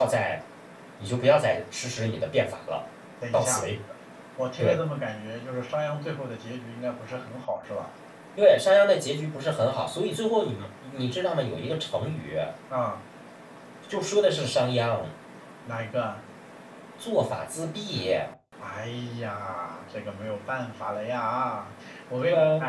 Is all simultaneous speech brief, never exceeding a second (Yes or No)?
Yes